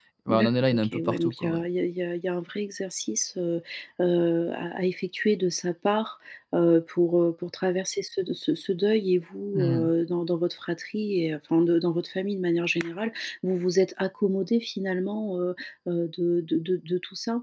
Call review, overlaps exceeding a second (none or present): present